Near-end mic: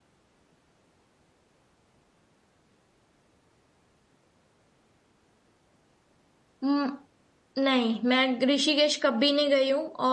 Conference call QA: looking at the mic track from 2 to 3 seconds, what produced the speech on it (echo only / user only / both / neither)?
neither